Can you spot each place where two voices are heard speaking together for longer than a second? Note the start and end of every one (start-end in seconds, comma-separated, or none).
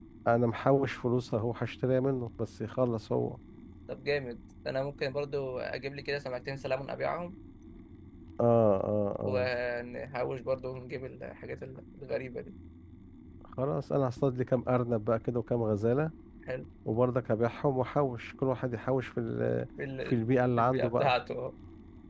none